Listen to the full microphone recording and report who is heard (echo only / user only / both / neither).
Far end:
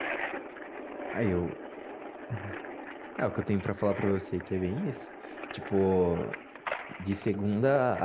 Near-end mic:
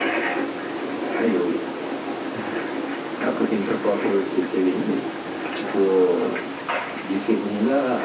echo only